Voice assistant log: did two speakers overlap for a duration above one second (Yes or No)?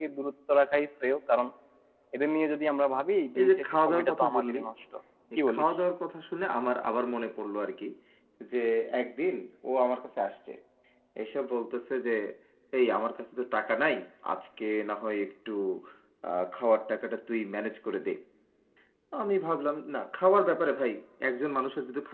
Yes